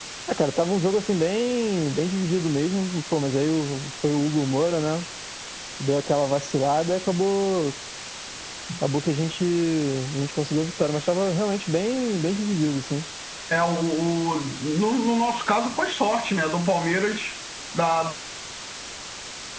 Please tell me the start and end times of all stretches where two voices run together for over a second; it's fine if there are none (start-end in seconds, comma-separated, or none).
none